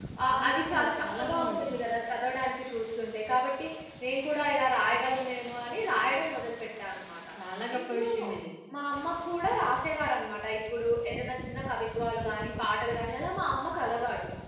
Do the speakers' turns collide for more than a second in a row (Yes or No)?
Yes